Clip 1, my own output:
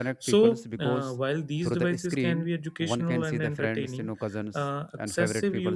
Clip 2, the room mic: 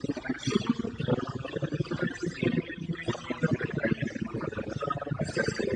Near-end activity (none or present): none